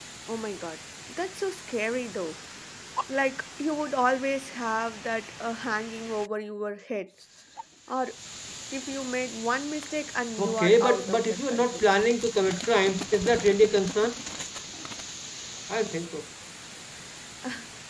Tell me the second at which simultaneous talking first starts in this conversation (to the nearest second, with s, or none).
10 s